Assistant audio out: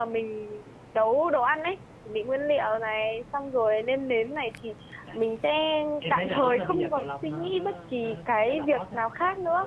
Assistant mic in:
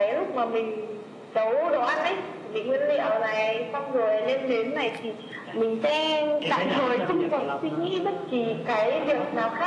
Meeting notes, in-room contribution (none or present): none